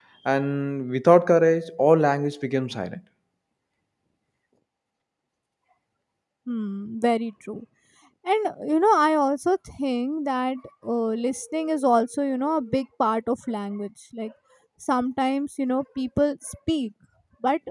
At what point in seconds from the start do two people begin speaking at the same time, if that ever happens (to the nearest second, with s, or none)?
none